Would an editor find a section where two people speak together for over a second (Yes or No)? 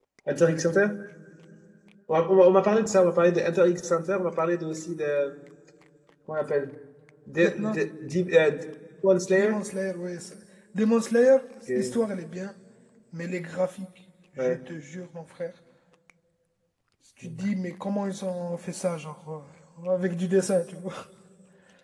No